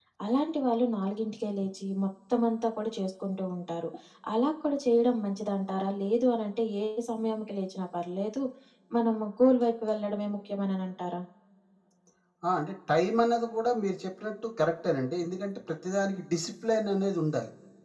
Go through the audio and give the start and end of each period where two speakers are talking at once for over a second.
none

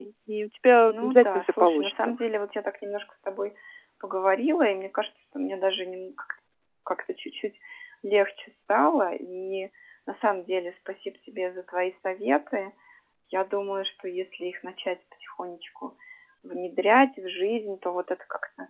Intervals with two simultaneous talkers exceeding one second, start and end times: 0.9-2.1

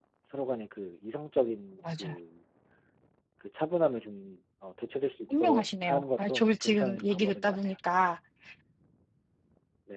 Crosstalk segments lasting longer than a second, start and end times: 5.4-7.7

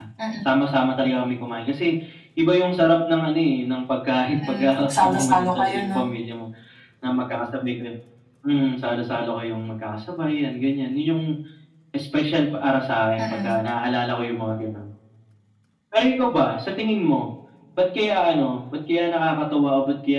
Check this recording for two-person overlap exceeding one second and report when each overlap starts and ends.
4.5-6.0

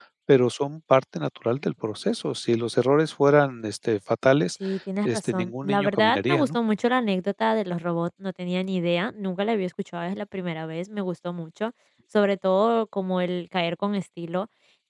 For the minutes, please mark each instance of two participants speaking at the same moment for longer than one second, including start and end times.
5.0-6.6

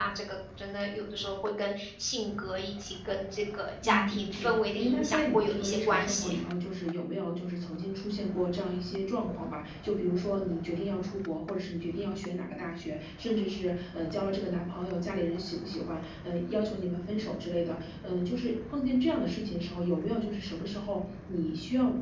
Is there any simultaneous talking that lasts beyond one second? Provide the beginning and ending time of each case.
3.9-6.4

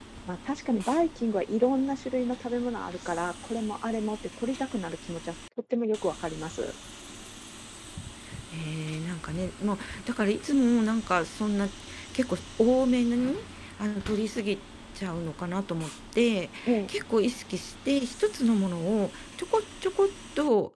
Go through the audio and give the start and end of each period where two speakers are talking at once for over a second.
none

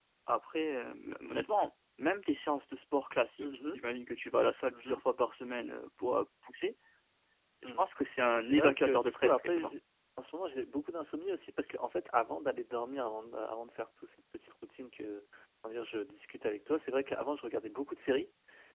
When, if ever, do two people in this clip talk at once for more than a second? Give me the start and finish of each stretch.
8.3-9.7

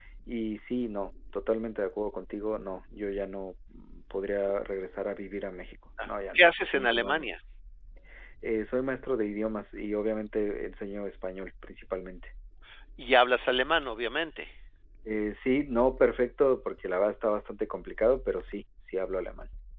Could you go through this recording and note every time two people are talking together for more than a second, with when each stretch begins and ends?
6.1-7.3

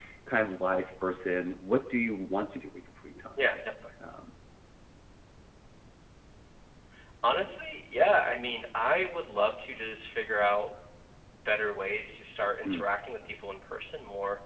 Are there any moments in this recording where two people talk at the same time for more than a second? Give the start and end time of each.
none

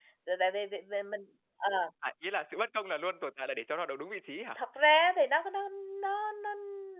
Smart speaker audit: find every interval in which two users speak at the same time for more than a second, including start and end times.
none

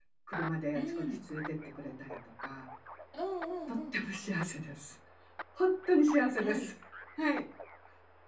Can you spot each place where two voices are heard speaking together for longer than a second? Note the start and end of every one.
none

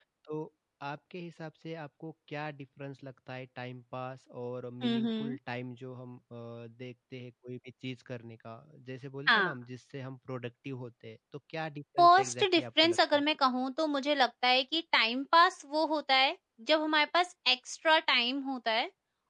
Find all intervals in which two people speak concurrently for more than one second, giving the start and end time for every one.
12.0-13.2

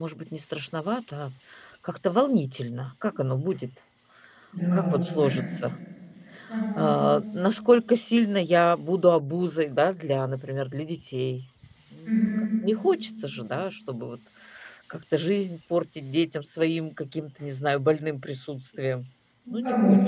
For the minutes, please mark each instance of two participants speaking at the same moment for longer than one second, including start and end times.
none

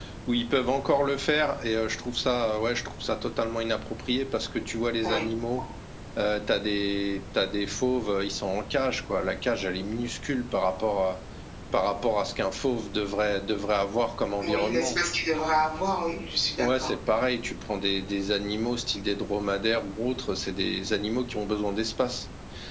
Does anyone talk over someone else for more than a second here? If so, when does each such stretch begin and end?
none

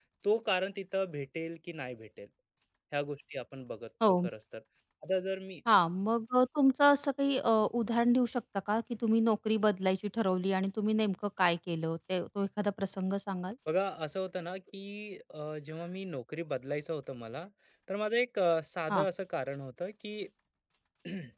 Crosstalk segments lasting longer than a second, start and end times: none

